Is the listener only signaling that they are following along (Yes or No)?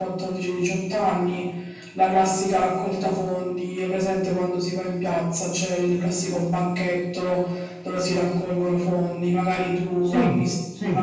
Yes